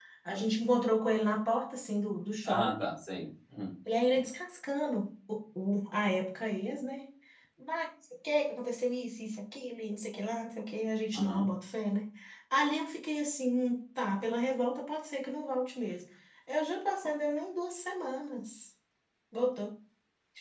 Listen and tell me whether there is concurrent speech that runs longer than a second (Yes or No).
No